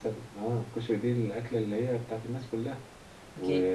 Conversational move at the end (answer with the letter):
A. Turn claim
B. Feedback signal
B